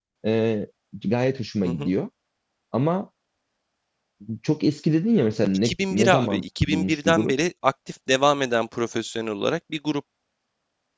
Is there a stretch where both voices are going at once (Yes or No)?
Yes